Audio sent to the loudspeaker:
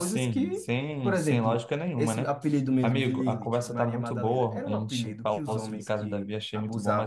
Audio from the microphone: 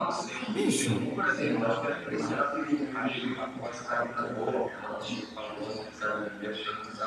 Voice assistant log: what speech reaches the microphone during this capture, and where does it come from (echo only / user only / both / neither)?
both